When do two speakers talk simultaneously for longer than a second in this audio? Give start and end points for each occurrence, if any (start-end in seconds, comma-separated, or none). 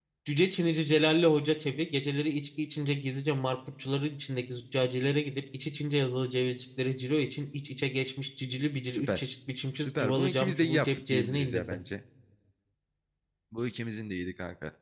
9.8-11.8